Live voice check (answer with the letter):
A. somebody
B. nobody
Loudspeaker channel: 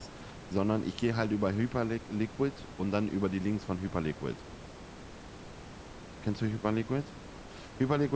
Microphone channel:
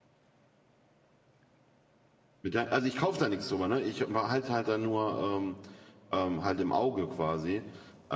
A